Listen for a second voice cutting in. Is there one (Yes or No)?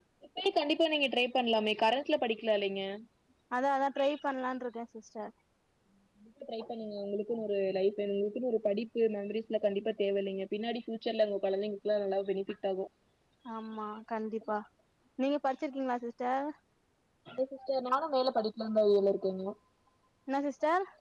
No